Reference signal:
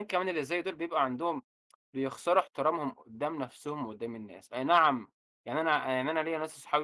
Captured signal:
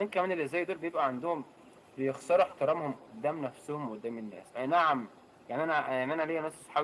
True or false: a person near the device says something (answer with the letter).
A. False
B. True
A